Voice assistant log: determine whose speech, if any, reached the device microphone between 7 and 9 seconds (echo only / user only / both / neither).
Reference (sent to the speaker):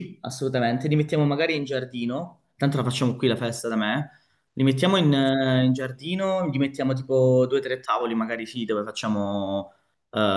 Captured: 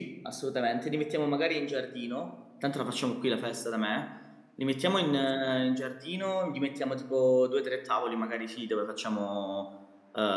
echo only